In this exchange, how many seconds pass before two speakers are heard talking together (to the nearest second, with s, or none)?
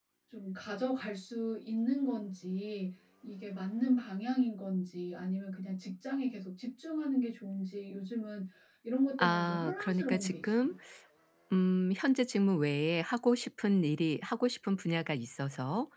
9 s